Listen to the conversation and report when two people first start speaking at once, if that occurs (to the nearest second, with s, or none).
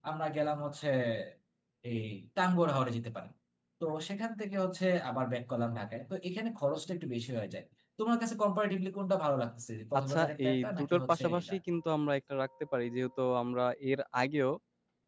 10 s